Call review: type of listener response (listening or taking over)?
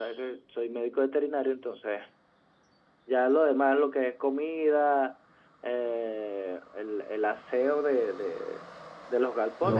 listening